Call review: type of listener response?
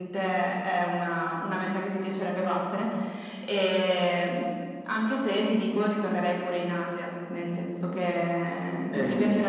taking over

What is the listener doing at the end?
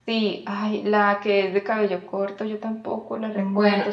listening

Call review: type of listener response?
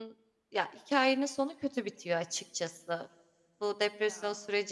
listening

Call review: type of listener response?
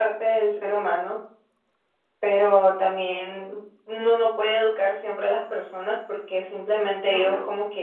listening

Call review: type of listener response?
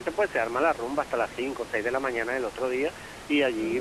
listening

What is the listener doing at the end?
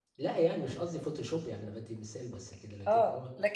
taking over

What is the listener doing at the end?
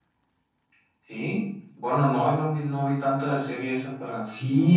taking over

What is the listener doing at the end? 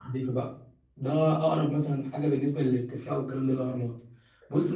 listening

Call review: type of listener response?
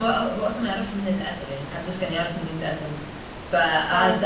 listening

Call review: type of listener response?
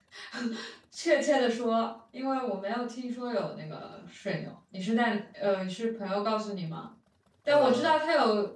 listening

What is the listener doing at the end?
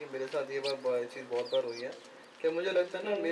listening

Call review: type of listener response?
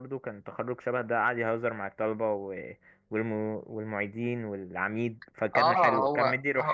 taking over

